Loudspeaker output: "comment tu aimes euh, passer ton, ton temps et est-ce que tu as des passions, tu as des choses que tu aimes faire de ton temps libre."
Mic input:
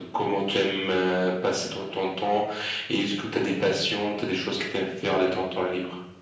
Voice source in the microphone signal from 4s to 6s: echo only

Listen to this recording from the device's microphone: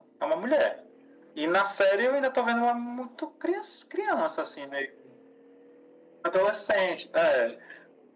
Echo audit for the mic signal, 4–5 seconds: echo only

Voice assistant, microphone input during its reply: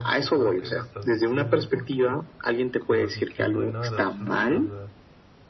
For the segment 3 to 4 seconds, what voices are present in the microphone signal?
both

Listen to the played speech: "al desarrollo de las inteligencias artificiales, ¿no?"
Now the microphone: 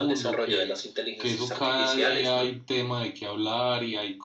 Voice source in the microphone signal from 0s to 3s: both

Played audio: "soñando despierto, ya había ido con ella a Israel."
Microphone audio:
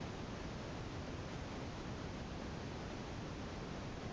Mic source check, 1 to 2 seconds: neither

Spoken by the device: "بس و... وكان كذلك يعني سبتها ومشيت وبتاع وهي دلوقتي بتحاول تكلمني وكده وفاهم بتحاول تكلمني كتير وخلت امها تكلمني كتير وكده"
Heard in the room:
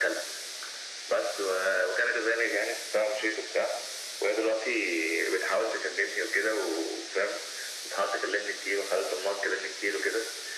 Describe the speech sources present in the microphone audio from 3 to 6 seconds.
echo only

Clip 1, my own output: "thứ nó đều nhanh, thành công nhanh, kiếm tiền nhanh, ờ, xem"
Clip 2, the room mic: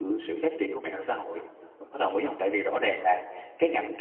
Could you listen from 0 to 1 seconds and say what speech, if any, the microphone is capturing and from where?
user only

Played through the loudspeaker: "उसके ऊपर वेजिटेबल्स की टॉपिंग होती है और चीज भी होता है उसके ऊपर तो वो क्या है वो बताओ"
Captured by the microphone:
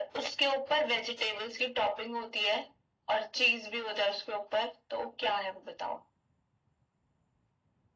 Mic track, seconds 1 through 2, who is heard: echo only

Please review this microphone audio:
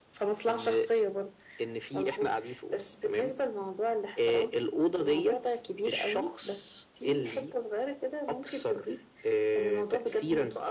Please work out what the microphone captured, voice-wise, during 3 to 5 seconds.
echo only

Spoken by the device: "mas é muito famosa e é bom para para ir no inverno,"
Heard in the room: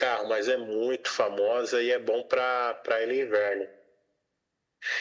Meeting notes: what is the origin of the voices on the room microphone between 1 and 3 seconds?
echo only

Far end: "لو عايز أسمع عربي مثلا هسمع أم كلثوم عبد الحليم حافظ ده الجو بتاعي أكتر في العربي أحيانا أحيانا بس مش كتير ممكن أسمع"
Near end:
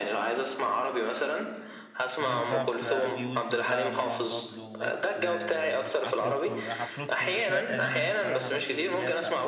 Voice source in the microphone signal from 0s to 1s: echo only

